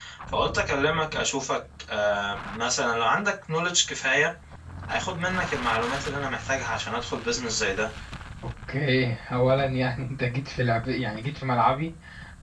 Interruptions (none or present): none